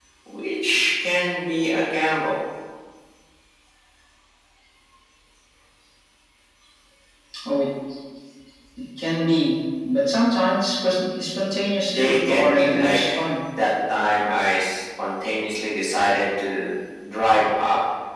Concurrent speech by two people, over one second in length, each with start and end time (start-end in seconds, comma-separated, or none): 11.9-13.1